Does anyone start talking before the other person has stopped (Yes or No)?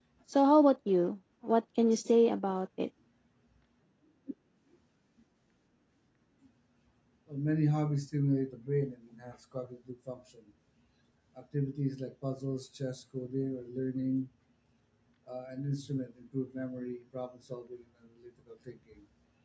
No